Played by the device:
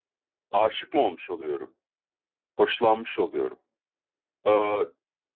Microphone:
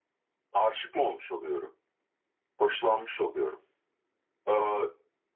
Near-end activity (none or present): none